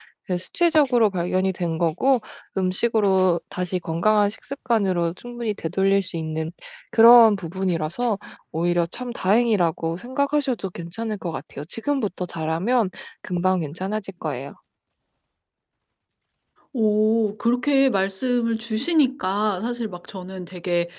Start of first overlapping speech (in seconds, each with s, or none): none